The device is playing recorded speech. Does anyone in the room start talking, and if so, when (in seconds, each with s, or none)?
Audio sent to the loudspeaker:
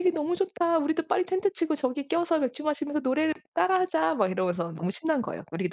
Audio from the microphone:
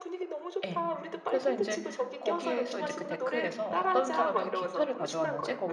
0.6 s